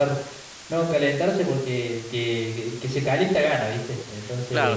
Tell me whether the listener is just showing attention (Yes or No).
No